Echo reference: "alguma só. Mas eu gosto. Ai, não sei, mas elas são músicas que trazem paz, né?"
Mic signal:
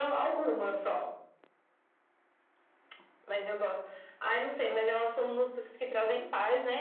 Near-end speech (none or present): none